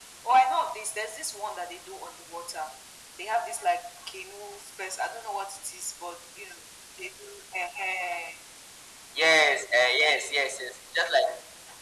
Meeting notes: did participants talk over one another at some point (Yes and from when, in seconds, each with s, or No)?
No